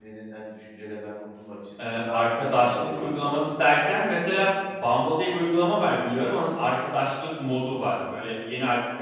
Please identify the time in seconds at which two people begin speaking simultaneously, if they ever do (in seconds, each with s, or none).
1.8 s